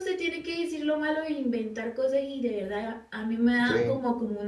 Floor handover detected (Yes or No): No